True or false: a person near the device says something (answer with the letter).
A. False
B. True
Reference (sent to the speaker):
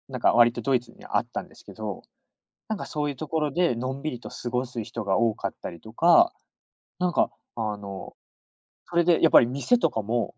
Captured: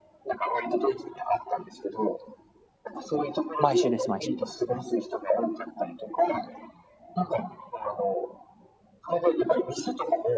B